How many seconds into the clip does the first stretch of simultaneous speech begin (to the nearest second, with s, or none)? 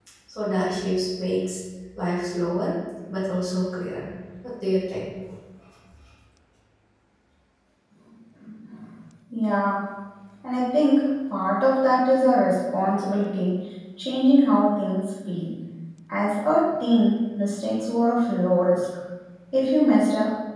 none